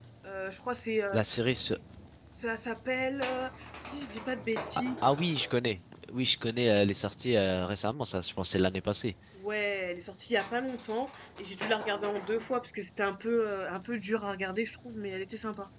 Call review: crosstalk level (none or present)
none